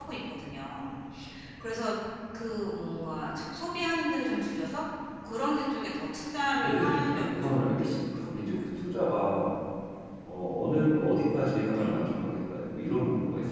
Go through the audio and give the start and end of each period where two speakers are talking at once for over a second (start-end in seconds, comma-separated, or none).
6.6-8.6